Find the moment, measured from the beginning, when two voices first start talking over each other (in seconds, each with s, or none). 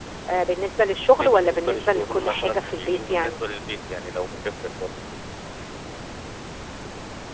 1.1 s